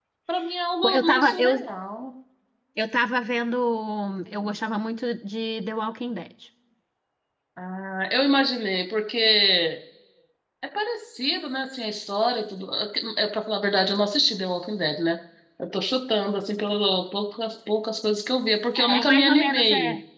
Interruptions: present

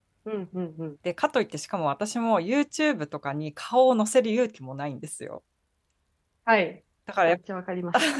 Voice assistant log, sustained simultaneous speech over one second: none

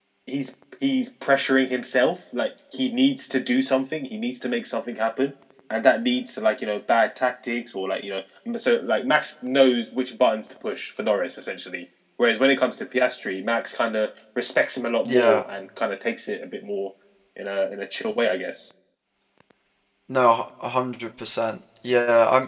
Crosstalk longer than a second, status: none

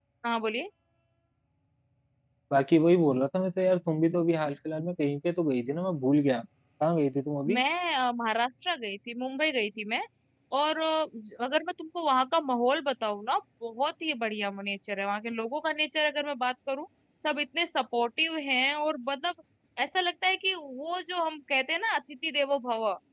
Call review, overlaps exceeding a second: none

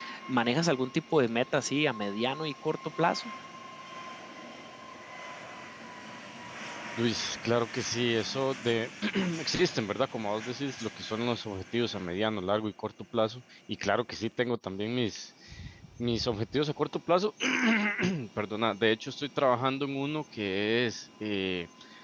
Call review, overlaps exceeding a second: none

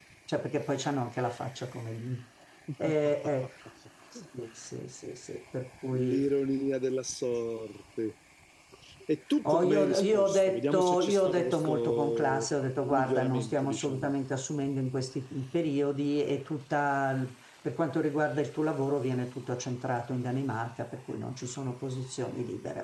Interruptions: present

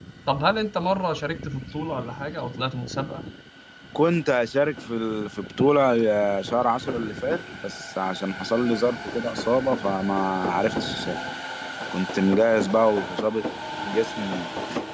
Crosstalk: none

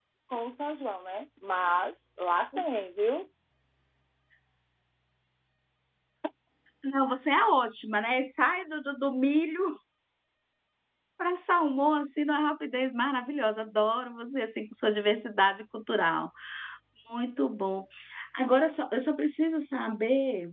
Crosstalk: none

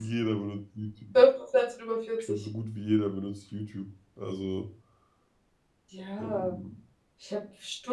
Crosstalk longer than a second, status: none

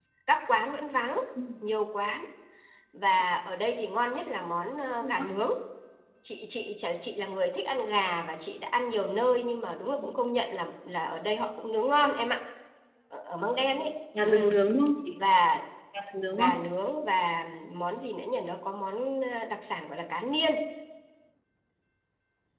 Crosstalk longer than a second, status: none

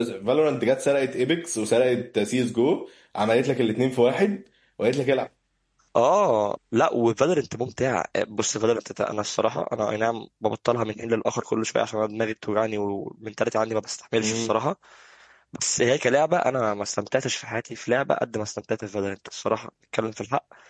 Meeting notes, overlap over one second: none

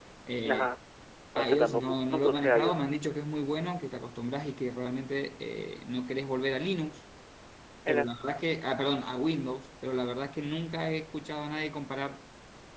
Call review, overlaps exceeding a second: present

